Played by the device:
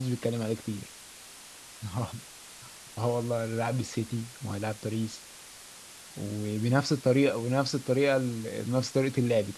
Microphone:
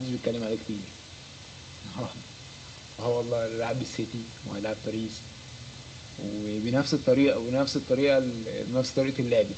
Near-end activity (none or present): none